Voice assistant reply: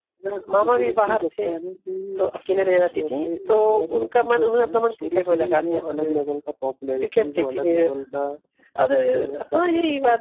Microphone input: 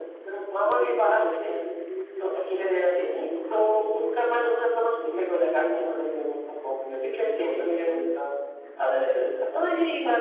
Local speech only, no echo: none

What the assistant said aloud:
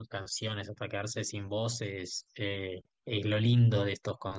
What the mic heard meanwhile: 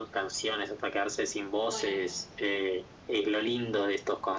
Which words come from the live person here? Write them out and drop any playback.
Bueno.

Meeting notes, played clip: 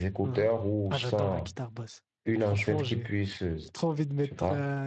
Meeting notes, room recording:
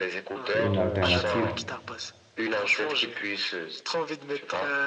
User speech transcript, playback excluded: Une alternative.

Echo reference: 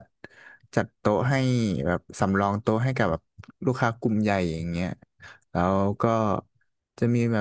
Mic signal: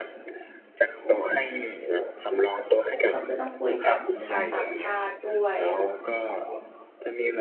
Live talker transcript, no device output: ก็คือต้องคุยกับชาวต่างชาติด้วย

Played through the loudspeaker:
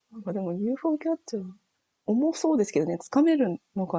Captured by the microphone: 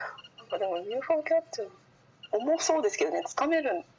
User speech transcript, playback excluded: none

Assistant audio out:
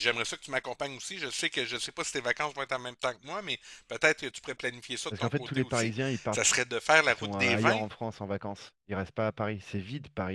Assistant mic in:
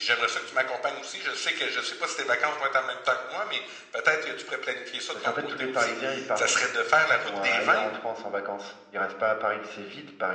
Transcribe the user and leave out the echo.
none

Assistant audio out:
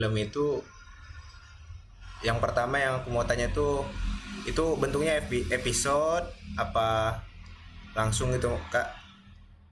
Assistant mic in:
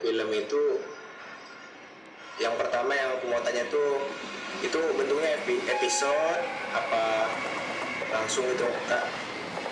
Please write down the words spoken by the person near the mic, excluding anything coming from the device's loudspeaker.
none

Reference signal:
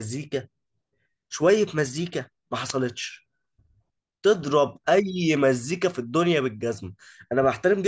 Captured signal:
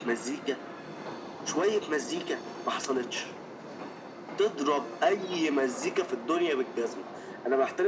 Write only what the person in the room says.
none

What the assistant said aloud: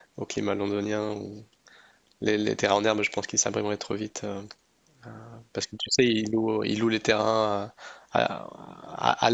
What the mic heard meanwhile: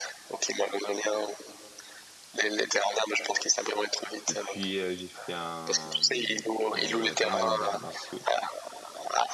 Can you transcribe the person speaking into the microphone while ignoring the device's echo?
Et puis, euh, j'ai fait un, euh, pas mal d'arts martiaux.

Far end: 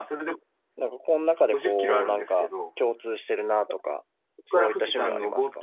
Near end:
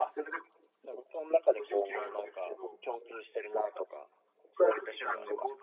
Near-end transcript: none

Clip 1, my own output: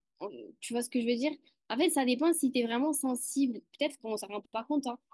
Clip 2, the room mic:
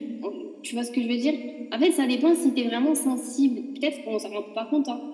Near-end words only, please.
none

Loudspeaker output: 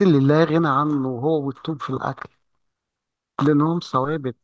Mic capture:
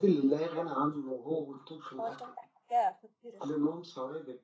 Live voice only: هو التوم ده حاجة خطيرة

